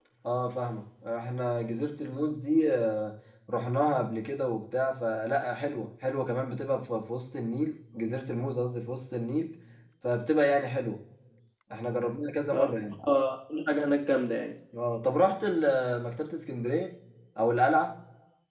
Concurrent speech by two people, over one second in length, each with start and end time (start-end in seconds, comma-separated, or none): none